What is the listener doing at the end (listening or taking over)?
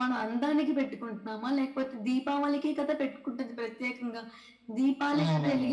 listening